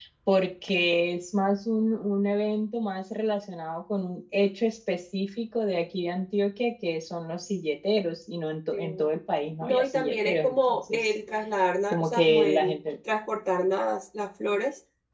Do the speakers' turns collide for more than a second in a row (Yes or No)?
Yes